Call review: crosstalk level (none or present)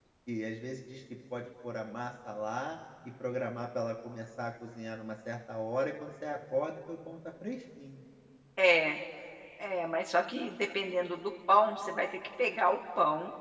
none